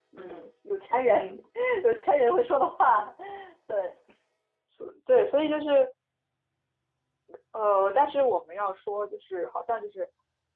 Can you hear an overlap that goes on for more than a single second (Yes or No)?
No